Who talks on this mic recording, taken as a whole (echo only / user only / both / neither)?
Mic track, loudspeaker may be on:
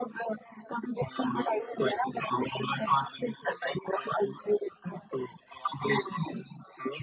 echo only